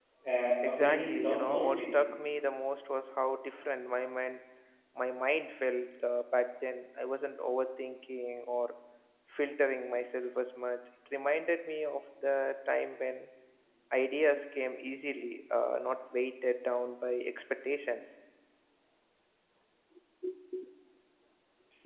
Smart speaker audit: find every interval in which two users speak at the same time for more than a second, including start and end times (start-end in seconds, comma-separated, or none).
0.6-1.9